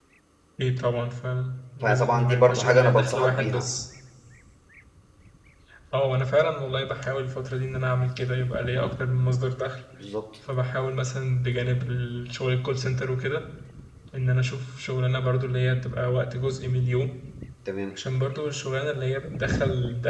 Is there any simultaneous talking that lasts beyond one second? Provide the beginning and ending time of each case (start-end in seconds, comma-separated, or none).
1.8-3.7